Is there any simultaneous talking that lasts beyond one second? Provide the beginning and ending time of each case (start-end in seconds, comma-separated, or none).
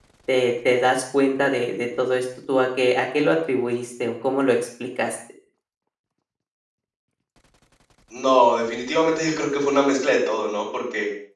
none